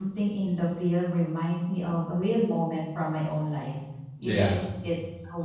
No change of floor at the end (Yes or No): Yes